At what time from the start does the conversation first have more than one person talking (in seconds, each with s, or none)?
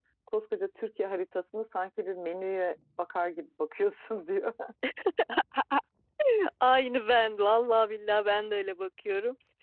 none